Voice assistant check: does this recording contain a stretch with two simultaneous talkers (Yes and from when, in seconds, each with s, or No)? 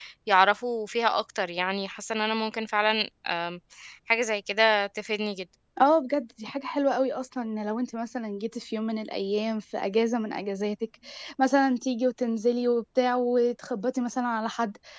No